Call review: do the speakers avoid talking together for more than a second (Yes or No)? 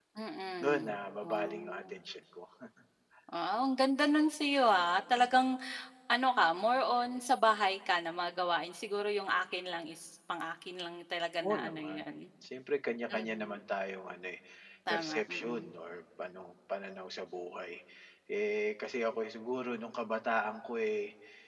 No